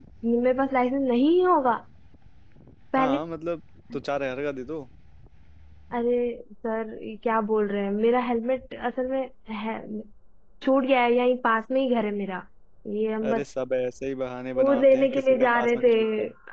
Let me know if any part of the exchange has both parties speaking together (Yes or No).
Yes